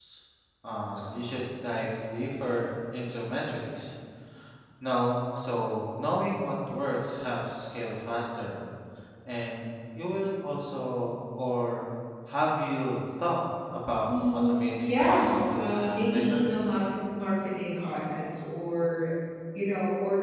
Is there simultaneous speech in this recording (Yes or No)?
Yes